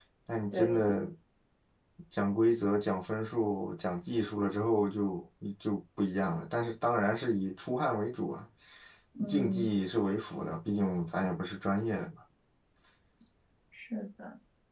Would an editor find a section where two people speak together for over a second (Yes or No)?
No